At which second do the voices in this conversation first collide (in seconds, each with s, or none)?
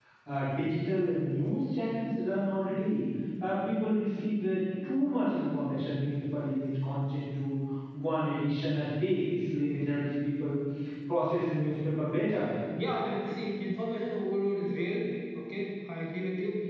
none